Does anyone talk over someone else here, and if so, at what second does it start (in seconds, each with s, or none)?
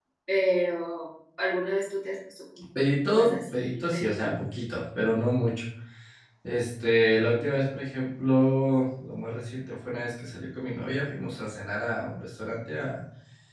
3.1 s